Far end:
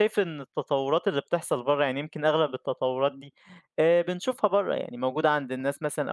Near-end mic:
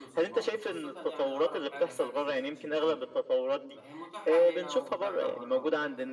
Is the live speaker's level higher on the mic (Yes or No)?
No